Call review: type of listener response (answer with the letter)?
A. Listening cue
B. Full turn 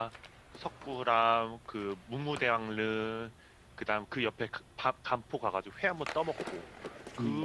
A